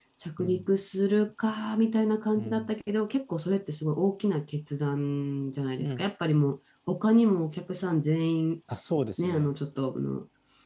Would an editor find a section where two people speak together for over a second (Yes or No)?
No